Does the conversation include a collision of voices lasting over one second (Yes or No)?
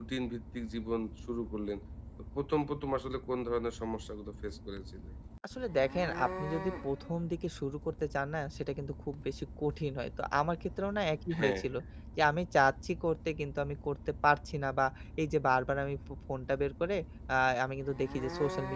No